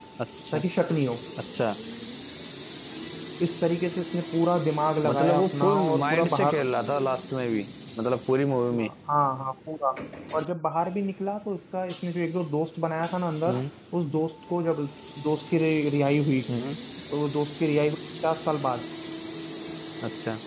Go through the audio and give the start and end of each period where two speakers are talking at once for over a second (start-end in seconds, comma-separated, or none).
5.0-6.6